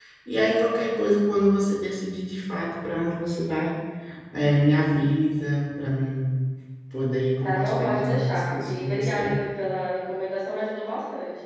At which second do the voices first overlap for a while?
7.4 s

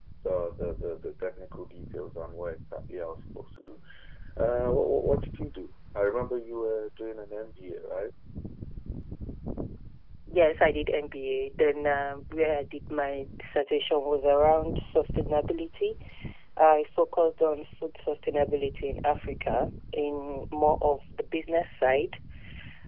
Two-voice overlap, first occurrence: none

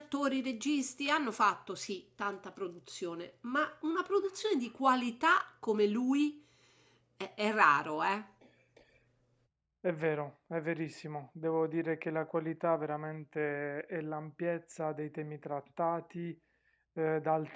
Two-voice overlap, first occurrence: none

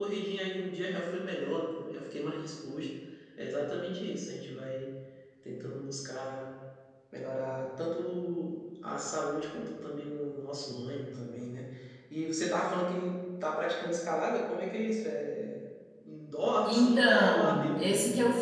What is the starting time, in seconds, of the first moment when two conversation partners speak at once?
16.6 s

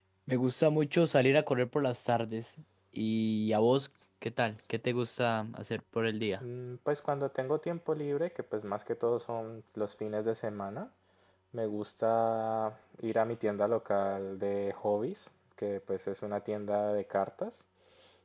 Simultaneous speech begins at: none

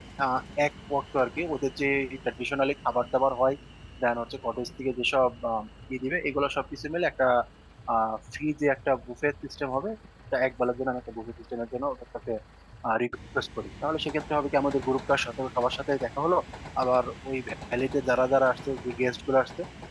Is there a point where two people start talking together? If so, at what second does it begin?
none

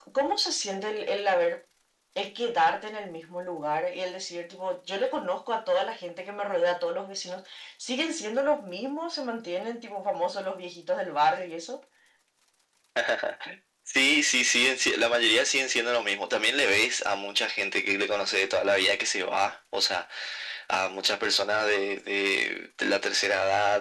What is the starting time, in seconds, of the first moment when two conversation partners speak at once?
none

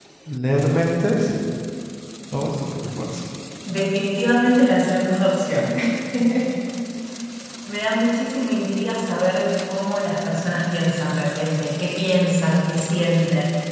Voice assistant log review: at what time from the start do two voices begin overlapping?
none

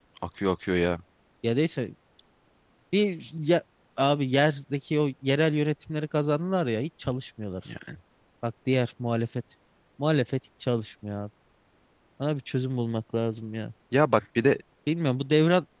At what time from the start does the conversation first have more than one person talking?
none

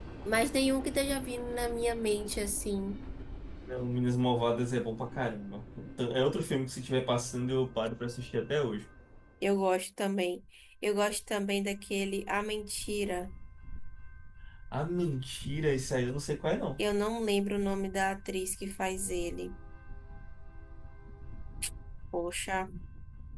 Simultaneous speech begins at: none

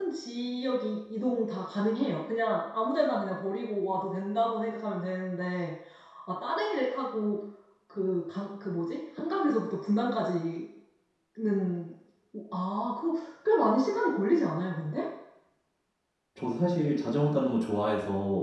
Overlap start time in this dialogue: none

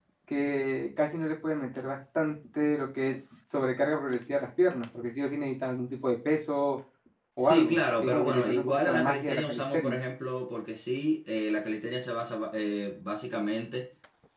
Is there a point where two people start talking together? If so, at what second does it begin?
7.4 s

